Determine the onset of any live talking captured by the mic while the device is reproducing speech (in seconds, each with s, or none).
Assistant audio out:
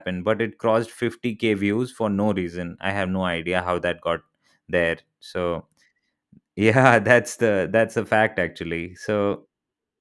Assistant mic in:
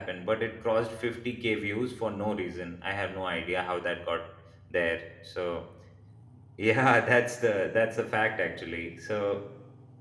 none